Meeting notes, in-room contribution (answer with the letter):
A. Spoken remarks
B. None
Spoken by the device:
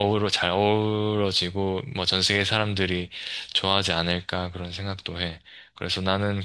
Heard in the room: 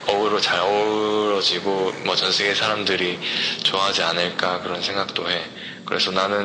B